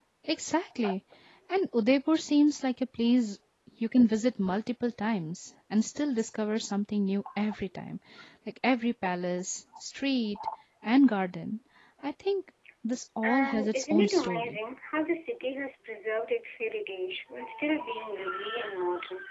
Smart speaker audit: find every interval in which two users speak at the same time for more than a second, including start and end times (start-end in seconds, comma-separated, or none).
13.2-14.6